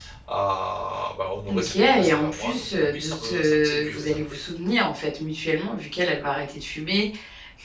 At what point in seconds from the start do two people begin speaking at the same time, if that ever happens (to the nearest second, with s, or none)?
1 s